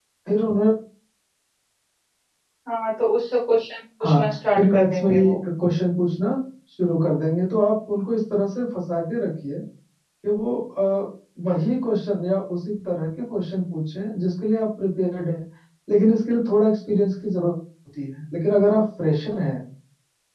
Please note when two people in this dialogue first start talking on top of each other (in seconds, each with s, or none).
4.0 s